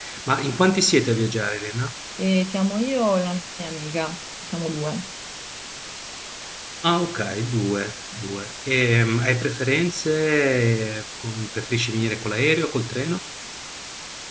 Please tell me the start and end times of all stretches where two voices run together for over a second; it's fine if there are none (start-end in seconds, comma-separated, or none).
none